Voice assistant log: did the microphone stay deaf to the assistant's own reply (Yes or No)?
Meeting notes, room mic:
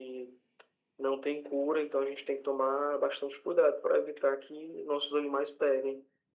No